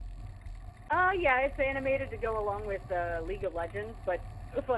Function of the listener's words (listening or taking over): listening